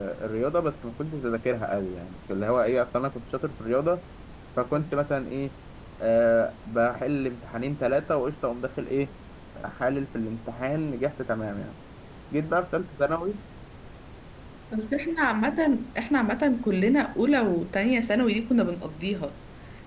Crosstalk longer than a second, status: none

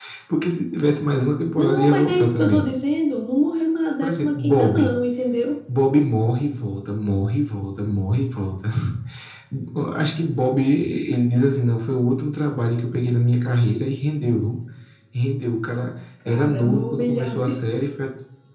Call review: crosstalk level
present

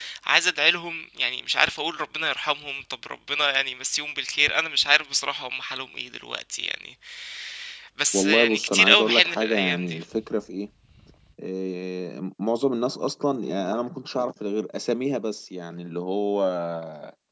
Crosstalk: present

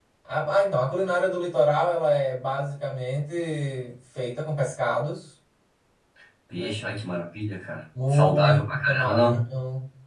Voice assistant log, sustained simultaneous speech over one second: present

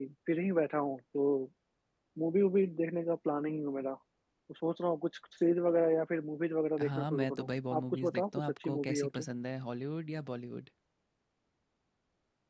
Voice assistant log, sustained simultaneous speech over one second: present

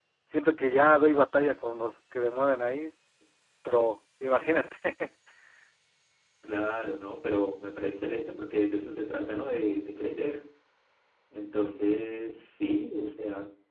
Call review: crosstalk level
none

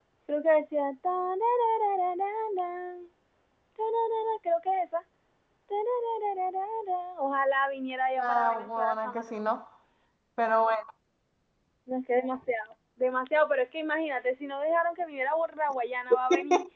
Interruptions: present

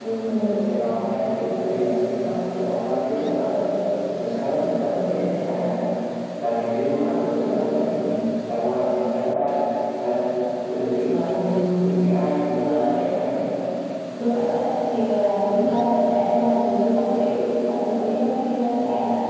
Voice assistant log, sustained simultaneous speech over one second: none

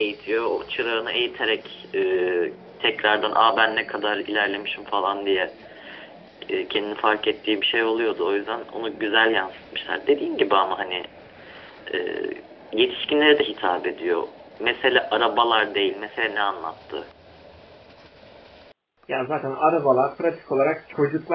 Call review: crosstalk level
none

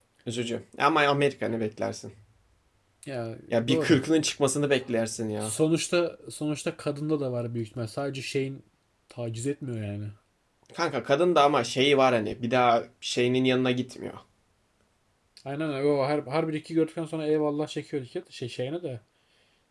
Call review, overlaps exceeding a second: none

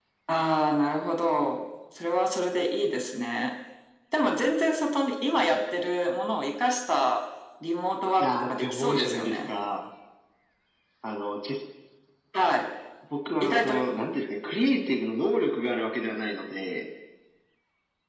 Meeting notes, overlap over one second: present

